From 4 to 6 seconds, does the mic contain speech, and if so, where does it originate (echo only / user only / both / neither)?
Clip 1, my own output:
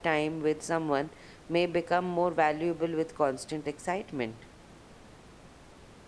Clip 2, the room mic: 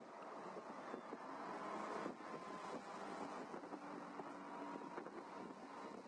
neither